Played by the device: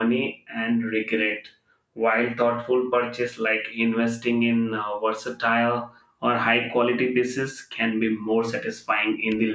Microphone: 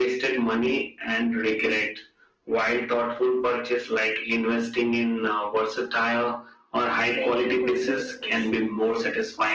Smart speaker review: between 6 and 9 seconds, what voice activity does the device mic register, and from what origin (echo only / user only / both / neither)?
both